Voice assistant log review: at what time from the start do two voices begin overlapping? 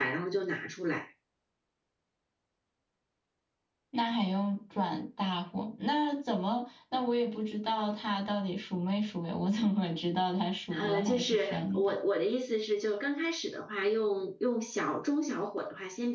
11 s

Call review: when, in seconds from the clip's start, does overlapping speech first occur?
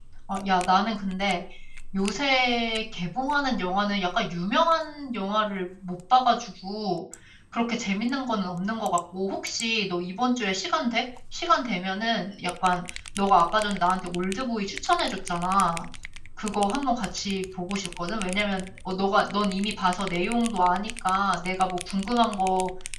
none

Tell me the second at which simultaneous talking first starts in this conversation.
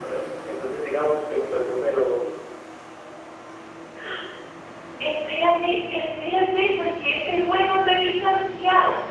none

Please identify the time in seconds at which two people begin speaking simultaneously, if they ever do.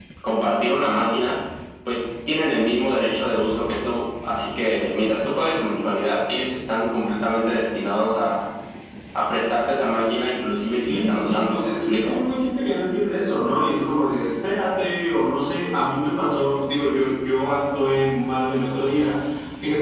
11 s

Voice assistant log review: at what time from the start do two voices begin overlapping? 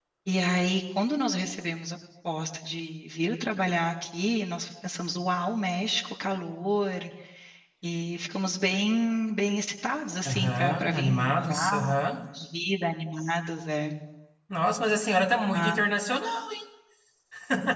10 s

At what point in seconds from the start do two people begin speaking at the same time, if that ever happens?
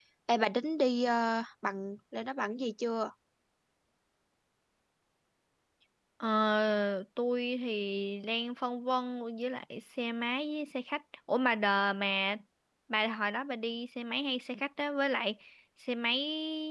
none

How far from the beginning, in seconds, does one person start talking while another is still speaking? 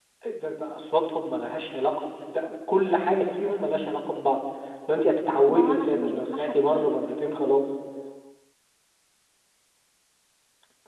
5 s

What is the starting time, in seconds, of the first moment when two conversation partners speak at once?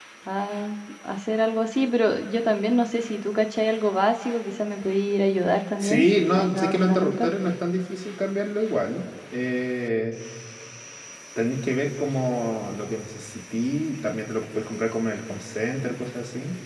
6 s

